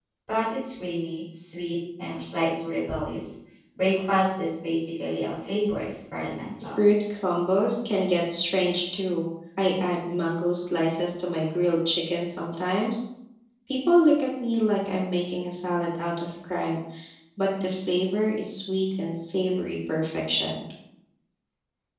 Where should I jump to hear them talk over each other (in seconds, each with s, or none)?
none